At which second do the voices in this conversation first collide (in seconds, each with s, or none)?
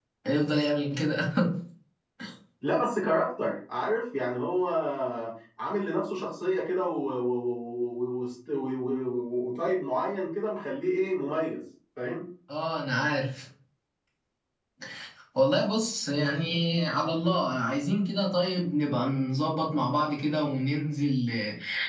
none